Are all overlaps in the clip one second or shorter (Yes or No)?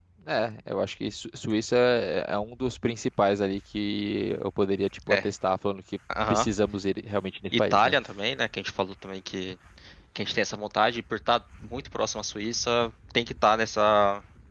Yes